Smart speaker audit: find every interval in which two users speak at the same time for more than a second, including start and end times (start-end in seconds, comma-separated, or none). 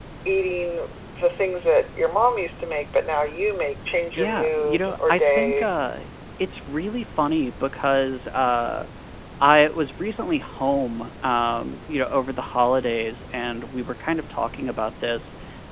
4.2-5.7